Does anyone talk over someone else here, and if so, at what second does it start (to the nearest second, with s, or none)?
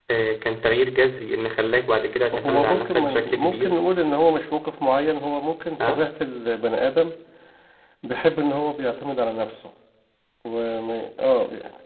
2 s